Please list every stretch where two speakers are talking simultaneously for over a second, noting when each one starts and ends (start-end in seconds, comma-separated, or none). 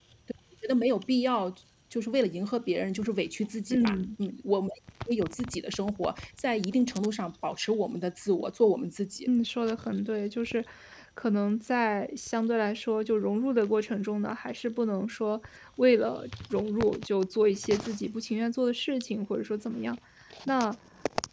none